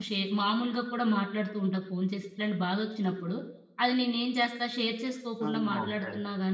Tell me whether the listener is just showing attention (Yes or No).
Yes